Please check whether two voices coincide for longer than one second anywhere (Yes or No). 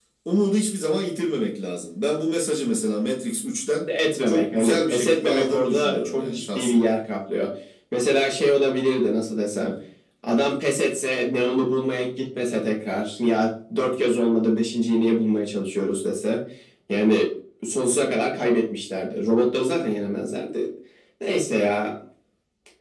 Yes